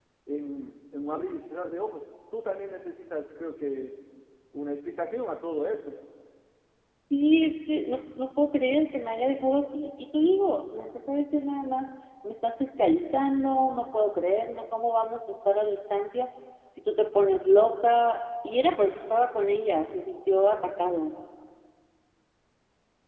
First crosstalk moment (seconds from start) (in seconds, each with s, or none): none